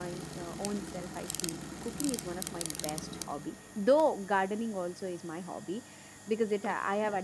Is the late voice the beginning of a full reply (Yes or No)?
No